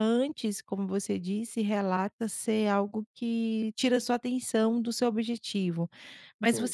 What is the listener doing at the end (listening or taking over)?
listening